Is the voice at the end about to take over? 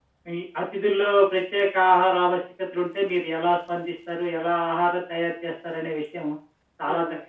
No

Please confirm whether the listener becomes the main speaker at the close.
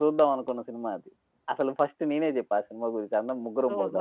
Yes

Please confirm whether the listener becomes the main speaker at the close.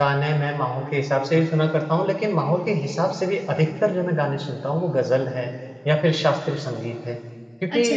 No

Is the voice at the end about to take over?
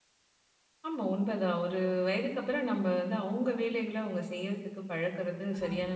Yes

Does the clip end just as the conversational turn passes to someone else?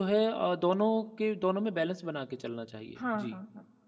Yes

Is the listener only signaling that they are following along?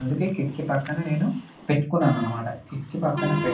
Yes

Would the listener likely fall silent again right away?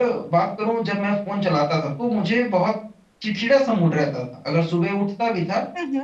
Yes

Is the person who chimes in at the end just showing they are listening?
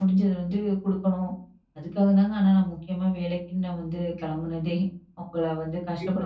No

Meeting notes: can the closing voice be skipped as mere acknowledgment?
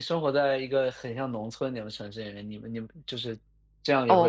No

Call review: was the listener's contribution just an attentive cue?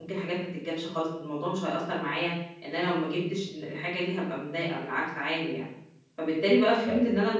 Yes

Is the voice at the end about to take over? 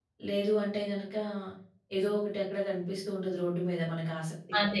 Yes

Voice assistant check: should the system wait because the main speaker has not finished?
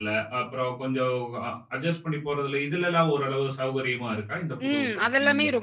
No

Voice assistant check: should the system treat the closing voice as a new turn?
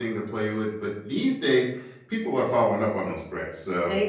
No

